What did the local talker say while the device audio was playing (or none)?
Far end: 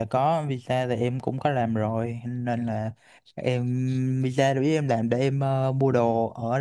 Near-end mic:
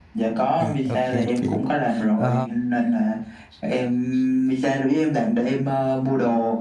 thì ok chị. Ờ,